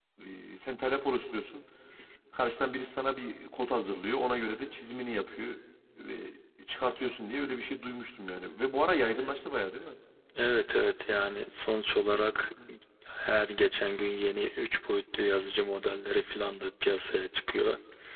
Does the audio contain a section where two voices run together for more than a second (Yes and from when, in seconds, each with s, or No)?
No